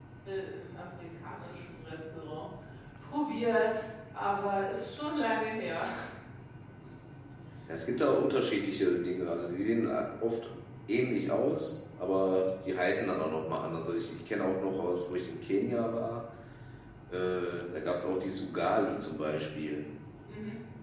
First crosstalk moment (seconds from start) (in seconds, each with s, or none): none